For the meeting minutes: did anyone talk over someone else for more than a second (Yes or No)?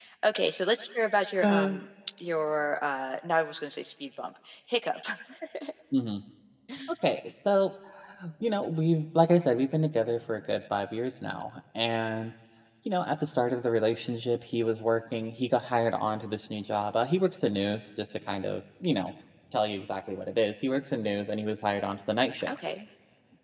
No